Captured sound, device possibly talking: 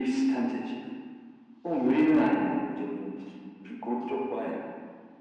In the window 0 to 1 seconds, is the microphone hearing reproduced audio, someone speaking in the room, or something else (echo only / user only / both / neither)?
echo only